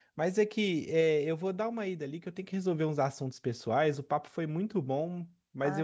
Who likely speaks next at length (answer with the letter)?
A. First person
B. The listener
A